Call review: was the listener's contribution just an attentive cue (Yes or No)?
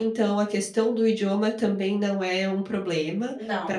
Yes